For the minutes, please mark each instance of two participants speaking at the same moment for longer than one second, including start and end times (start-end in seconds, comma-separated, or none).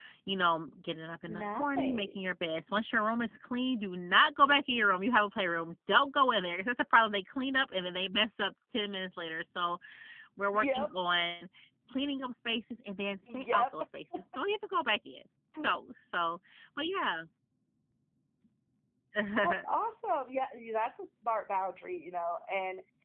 1.3-2.5